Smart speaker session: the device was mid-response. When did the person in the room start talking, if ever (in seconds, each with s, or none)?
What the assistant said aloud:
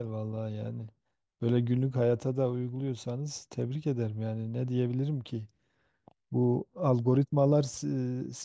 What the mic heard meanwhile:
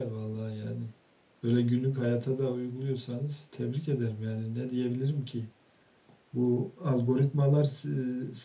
none